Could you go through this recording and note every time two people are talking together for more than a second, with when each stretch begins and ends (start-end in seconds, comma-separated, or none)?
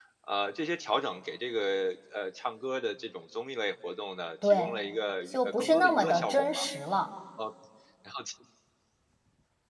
5.3-6.6